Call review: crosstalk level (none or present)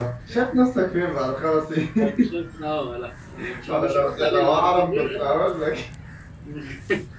present